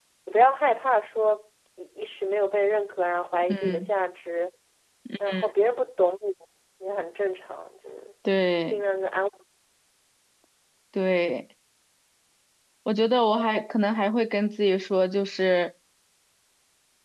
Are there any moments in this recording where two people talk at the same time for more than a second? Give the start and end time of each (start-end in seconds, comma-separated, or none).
none